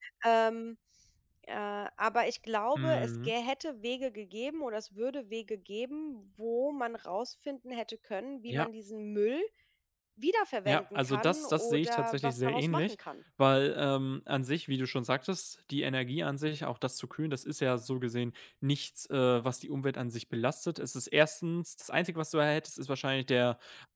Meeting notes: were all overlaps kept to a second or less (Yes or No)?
No